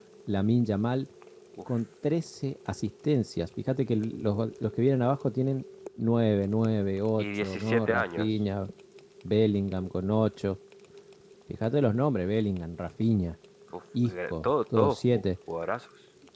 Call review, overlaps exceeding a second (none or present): present